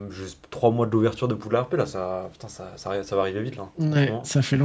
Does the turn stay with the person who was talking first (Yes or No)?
No